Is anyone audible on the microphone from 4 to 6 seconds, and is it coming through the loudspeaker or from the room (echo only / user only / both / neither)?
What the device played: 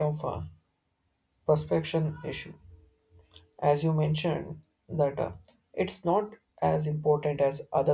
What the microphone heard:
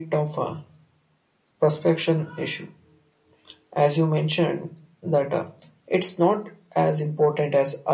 echo only